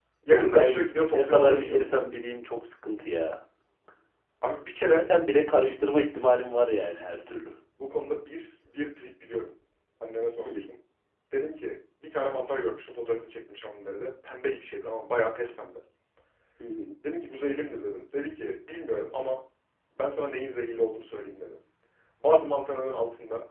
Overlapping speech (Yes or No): Yes